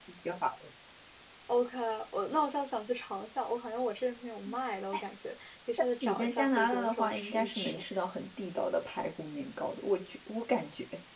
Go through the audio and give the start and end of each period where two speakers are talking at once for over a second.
6.0-7.8

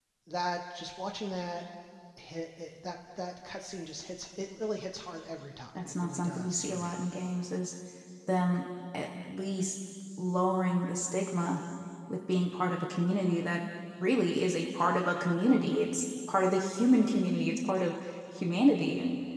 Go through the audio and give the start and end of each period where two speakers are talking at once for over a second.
5.8-7.0

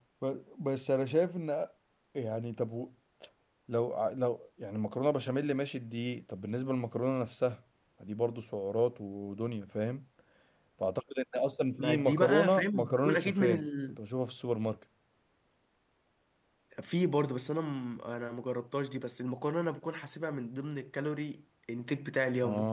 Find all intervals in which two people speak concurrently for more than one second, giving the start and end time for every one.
11.8-14.0

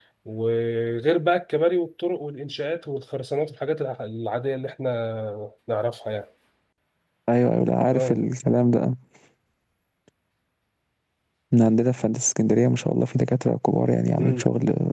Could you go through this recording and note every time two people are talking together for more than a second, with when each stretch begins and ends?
none

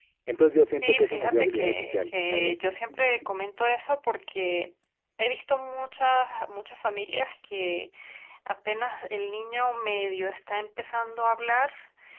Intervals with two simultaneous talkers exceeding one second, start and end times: 0.8-2.6

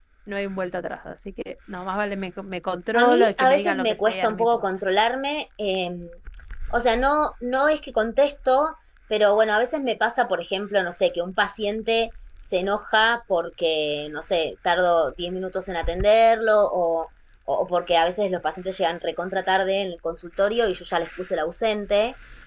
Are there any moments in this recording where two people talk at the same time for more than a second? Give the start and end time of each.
2.9-4.6

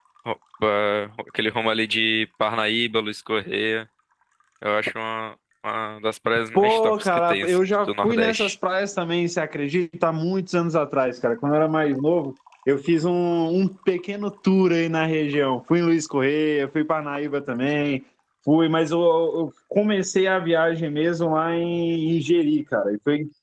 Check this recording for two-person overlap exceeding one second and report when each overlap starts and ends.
6.6-8.5

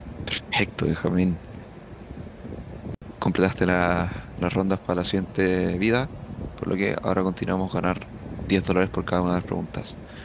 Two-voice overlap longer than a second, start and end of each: none

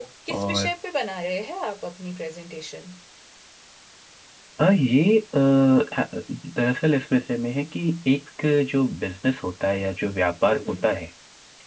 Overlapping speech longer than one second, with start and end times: none

